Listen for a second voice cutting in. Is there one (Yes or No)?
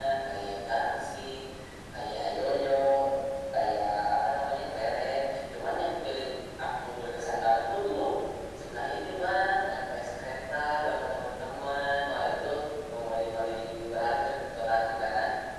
No